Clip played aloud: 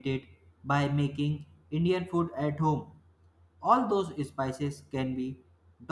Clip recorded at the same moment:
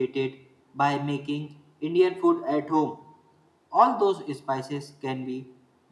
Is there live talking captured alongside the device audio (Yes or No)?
No